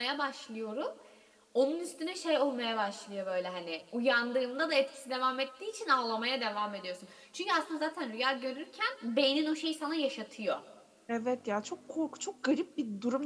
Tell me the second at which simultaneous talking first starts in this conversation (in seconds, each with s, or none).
none